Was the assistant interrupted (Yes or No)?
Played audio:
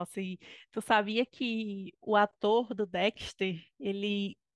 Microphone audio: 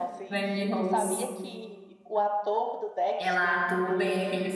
Yes